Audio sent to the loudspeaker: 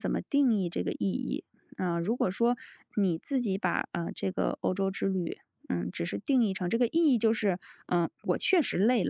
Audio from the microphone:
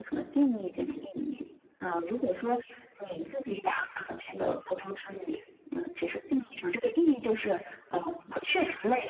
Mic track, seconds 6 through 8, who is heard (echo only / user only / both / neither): echo only